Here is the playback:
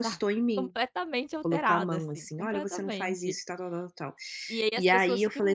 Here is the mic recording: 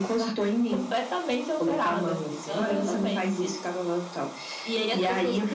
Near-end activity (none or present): present